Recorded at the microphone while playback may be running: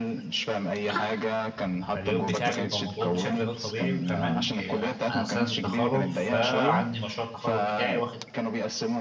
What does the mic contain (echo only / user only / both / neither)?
both